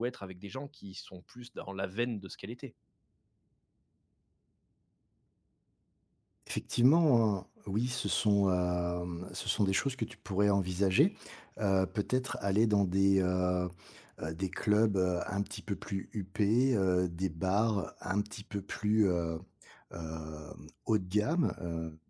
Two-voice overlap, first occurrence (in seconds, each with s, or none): none